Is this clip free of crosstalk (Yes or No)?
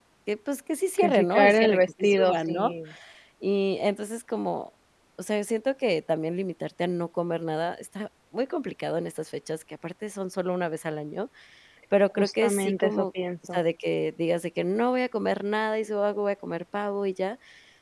No